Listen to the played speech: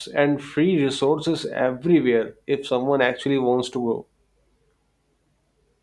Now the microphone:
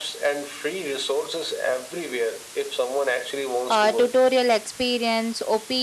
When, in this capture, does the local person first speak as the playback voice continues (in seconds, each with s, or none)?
3.7 s